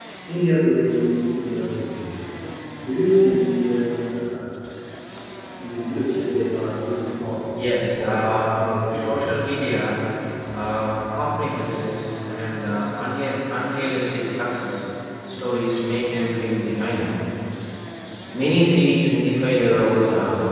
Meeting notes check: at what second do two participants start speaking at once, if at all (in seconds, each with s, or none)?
7.9 s